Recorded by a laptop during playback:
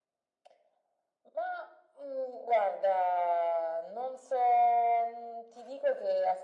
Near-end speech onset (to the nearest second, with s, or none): none